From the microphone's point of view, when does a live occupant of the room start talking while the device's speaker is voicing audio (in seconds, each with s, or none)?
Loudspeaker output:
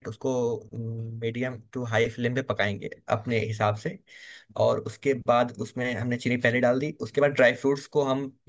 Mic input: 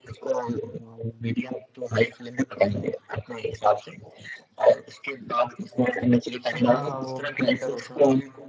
6.5 s